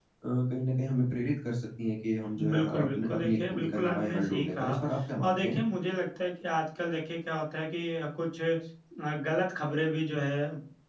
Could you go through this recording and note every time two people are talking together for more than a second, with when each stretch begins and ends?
2.5-4.8

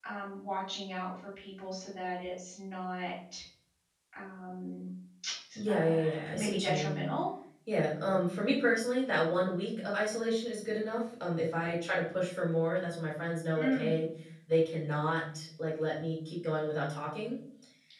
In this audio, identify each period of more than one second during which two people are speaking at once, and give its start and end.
5.7-6.9

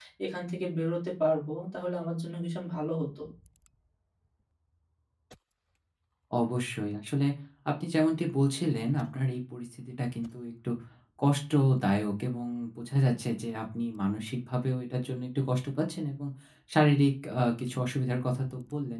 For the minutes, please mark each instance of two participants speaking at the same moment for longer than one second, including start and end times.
none

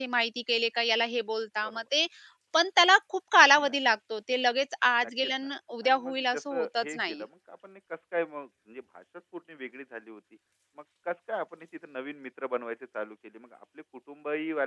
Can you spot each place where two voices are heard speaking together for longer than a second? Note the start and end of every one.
5.8-7.2

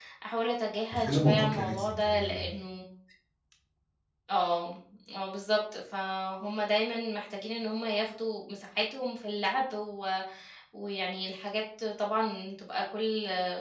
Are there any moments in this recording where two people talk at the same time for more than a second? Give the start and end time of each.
0.9-2.5

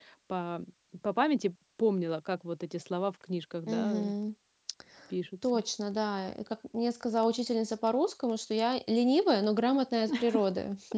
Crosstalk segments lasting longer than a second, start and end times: none

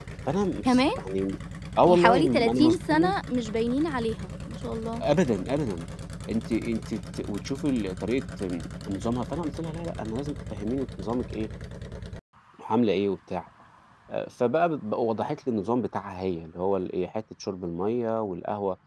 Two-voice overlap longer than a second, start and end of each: 1.9-3.1

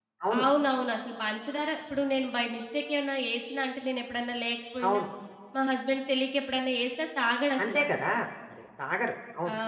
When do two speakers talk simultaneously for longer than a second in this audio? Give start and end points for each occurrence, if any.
none

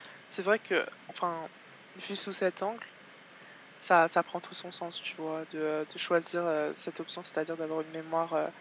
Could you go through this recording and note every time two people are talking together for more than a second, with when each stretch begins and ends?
none

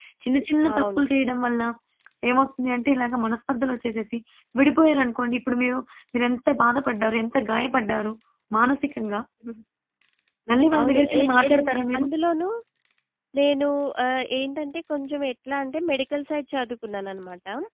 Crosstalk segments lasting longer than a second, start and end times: 10.8-12.1

